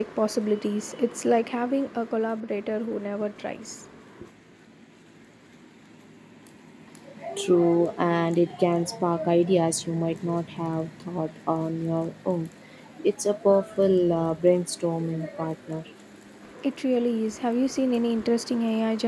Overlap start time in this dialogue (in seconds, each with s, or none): none